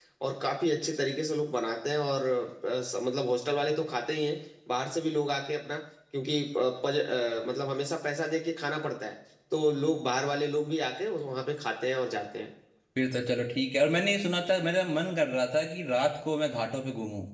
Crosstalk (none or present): none